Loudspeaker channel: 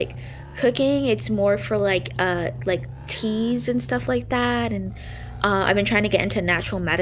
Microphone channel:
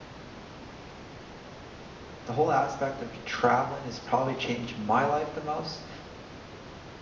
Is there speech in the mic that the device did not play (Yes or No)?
Yes